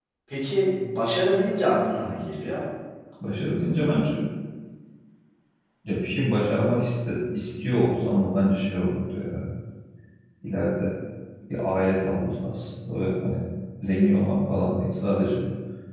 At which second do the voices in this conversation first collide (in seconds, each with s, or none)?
none